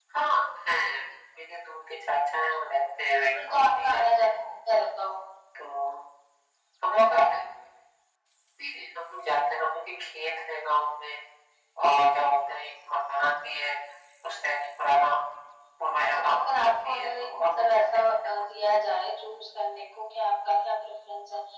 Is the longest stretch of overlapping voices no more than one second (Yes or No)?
No